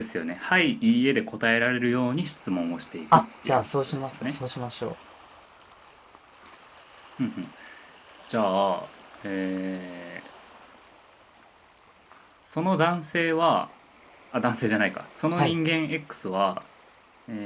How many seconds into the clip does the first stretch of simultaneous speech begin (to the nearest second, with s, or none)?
3 s